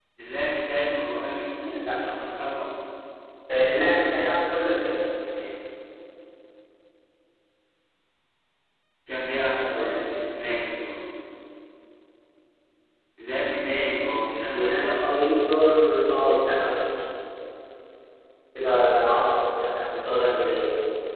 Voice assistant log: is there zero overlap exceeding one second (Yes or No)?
Yes